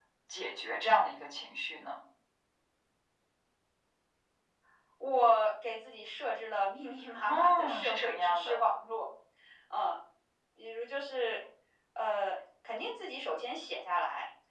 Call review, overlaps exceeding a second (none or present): present